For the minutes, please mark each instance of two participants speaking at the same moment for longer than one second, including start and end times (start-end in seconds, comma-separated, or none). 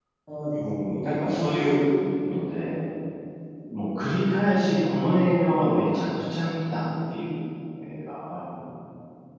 0.6-1.8